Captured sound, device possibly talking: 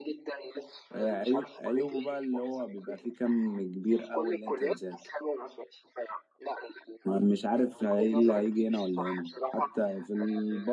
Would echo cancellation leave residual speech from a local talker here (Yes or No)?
Yes